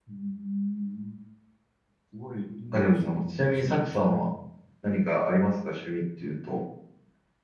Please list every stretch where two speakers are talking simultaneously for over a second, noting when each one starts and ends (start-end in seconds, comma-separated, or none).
2.7-4.3